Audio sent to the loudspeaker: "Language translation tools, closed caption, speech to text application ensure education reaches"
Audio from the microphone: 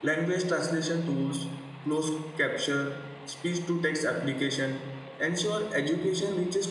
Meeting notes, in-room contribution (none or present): none